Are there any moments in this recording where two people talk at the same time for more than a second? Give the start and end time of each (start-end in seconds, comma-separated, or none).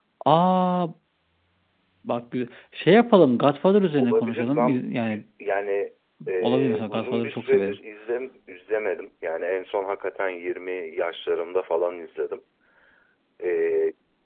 4.0-5.2, 6.4-7.8